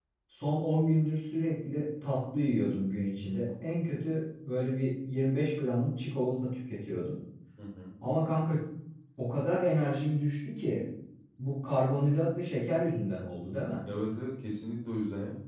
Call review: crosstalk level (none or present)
none